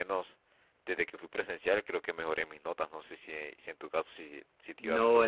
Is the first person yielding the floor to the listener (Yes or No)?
Yes